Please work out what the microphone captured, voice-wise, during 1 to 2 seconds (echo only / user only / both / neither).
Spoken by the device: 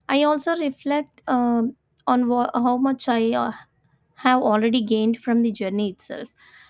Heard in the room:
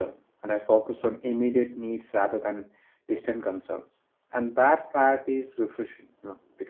user only